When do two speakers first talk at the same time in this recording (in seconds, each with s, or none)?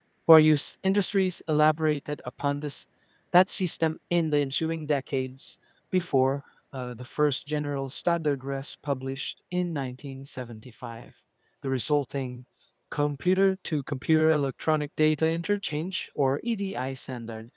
none